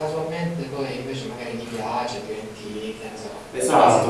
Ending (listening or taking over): taking over